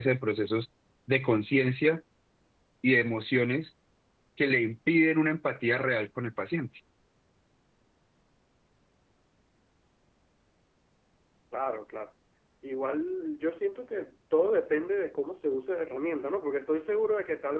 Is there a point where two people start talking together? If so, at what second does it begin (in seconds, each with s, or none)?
none